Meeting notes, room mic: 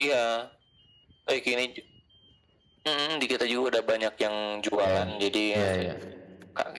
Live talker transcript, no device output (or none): Iya. Iya iya.